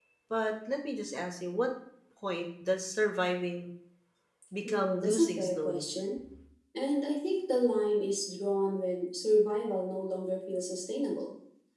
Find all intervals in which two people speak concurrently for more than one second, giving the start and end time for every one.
4.6-5.9

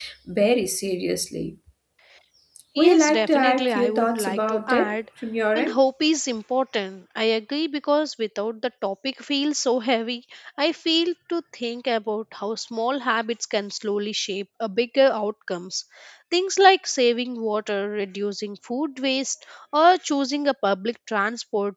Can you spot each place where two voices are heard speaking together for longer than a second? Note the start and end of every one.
2.8-5.0

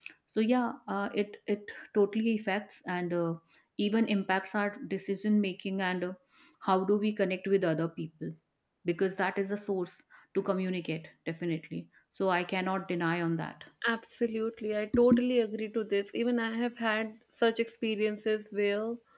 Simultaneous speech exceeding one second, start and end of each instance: none

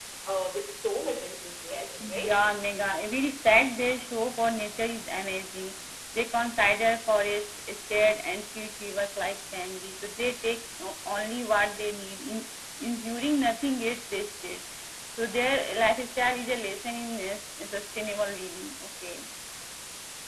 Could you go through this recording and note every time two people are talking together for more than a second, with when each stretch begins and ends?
none

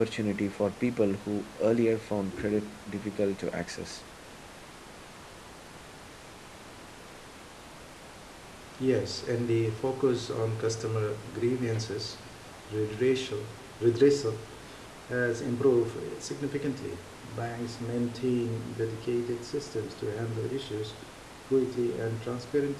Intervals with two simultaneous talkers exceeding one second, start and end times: none

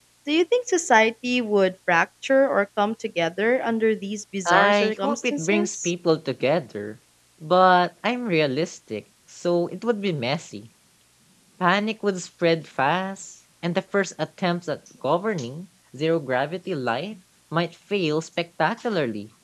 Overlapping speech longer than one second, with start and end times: 4.5-5.9

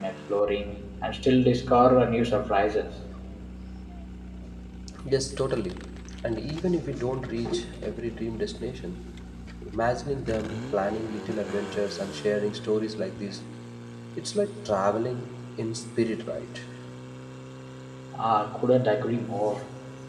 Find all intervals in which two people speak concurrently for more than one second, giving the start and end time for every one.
none

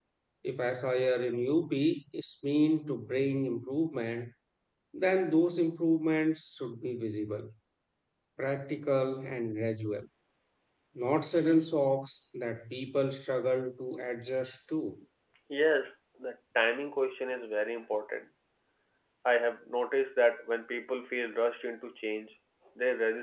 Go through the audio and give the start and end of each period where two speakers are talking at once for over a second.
none

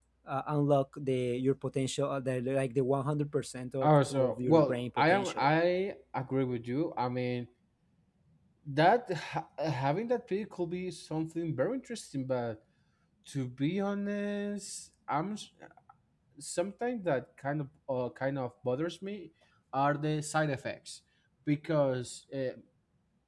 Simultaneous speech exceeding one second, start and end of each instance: 3.8-5.5

